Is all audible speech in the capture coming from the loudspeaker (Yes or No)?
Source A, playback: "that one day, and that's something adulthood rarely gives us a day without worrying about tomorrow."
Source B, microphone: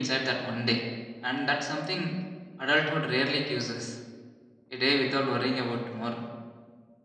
Yes